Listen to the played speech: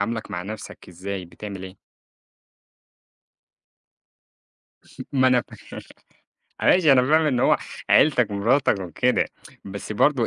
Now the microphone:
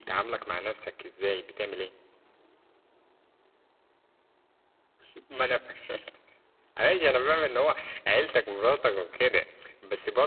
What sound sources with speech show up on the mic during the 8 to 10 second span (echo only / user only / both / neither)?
echo only